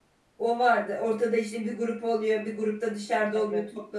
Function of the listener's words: listening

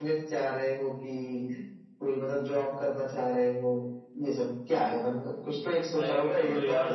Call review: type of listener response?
taking over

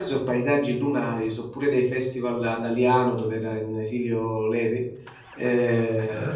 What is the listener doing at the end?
listening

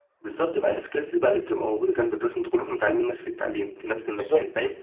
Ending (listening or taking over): listening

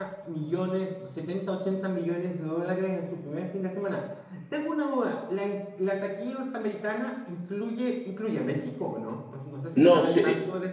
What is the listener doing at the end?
taking over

